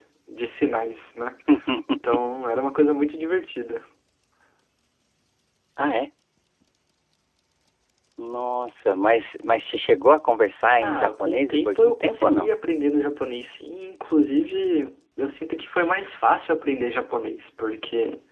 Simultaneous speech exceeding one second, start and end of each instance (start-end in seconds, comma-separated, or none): 10.8-12.5